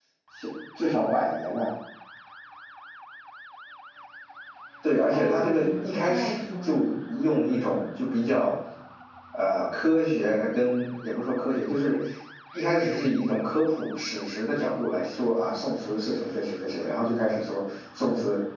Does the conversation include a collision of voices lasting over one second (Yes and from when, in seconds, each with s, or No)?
Yes, from 5.1 s